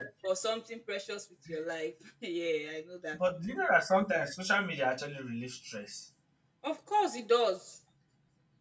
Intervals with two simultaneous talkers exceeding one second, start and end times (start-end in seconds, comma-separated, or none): none